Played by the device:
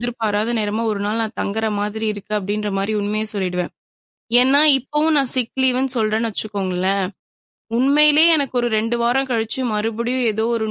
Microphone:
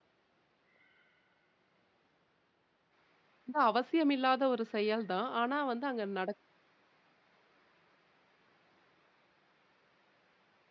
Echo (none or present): none